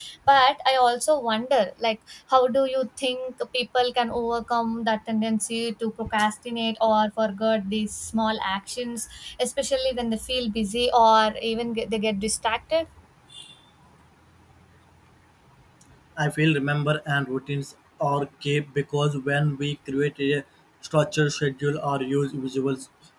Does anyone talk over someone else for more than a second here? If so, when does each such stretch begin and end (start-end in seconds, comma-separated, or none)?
none